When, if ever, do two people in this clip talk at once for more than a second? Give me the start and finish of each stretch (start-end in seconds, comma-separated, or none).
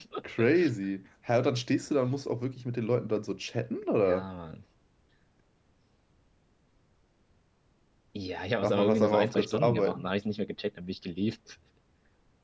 8.6-10.1